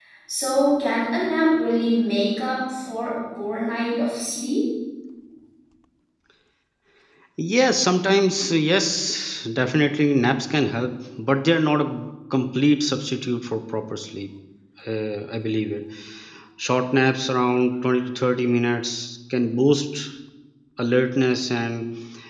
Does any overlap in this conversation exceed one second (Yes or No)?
No